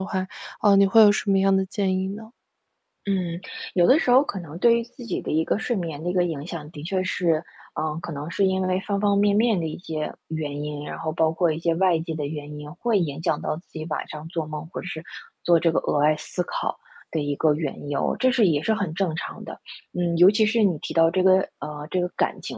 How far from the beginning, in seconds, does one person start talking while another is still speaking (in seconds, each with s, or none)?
none